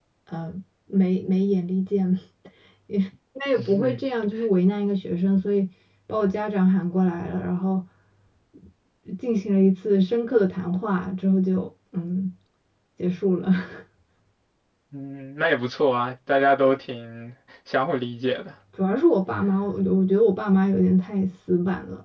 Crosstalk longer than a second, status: none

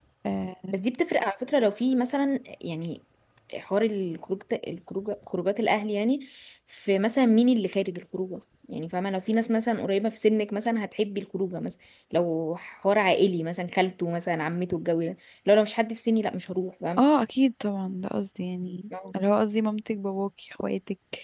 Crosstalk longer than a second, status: none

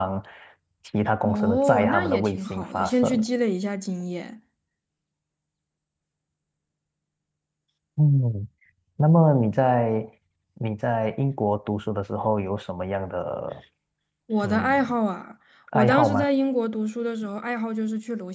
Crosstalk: present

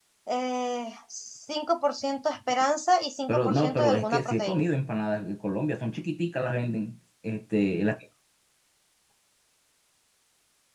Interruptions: present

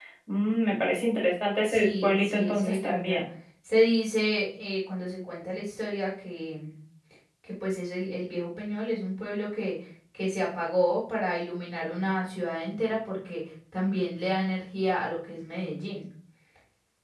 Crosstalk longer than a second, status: present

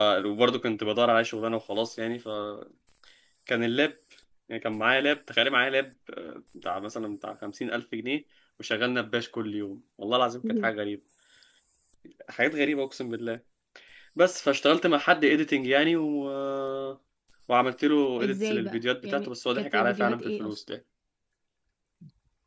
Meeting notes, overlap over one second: present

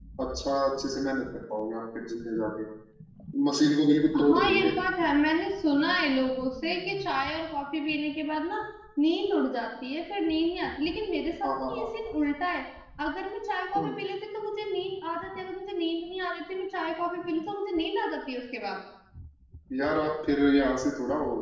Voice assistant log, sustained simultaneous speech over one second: none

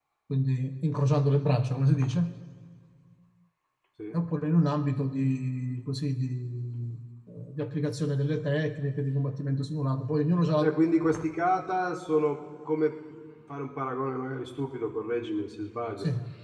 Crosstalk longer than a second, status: none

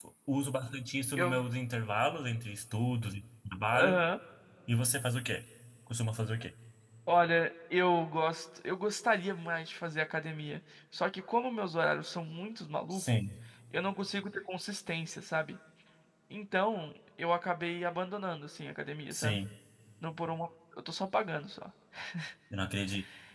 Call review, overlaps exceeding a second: none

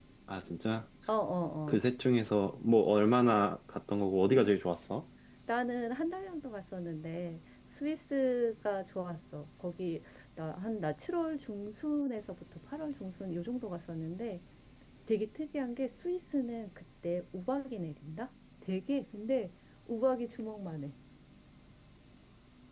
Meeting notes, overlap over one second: none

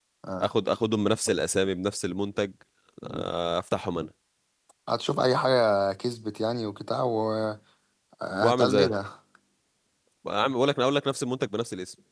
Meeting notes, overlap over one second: none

